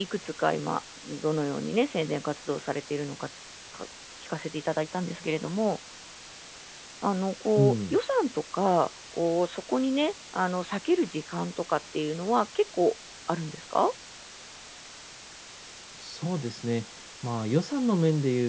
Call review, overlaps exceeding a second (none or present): none